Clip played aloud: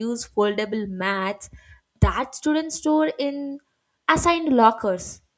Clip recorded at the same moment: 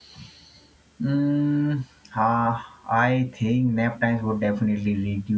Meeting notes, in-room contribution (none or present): present